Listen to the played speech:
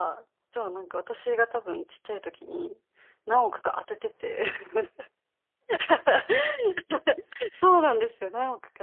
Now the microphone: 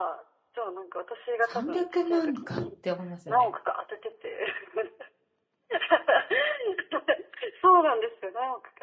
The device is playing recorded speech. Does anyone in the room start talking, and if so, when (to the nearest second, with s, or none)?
1 s